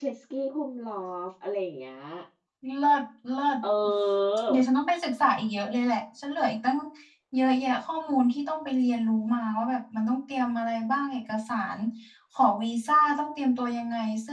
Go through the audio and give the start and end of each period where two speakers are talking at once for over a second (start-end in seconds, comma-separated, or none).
none